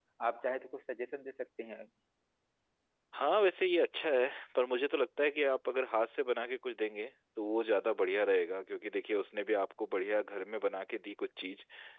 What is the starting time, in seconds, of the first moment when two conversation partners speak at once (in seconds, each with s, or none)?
none